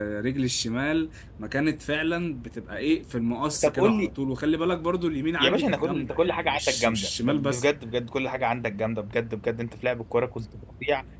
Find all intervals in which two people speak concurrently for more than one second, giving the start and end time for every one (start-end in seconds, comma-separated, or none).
5.4-7.6